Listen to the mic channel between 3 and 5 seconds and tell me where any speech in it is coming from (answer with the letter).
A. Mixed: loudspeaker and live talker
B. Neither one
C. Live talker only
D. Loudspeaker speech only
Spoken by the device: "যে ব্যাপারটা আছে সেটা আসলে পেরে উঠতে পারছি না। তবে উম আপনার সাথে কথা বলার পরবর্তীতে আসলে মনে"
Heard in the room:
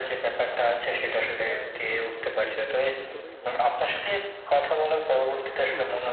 A